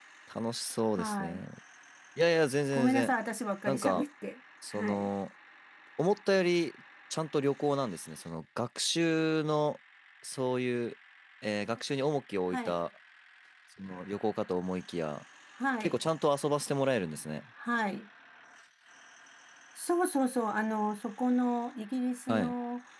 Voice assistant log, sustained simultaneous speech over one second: none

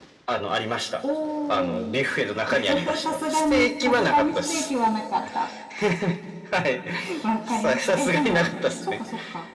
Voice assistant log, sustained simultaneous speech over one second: present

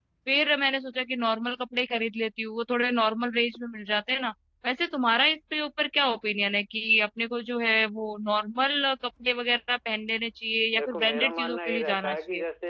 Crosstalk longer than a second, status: present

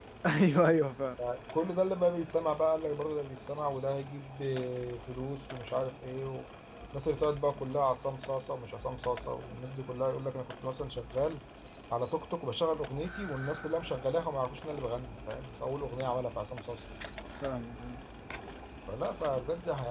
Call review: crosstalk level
none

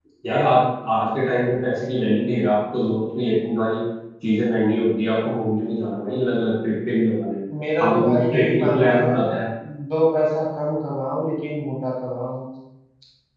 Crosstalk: present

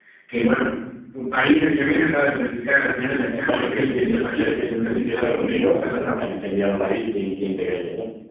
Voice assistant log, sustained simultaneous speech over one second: present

